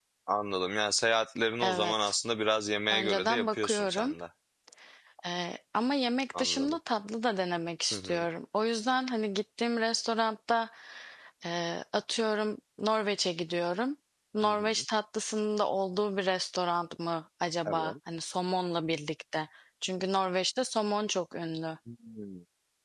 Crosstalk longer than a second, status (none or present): present